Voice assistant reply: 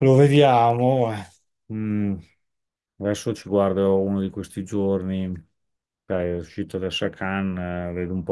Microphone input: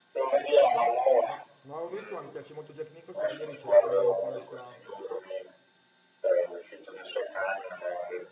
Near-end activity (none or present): present